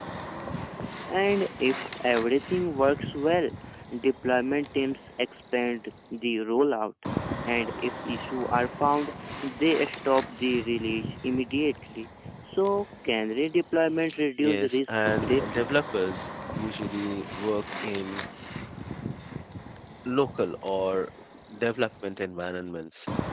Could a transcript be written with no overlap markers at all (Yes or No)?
No